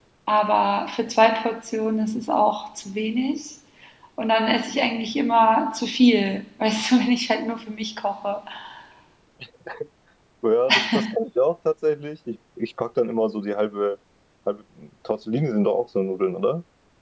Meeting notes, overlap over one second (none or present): none